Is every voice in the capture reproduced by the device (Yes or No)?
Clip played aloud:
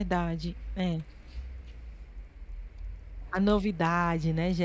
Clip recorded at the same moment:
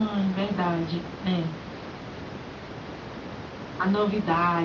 Yes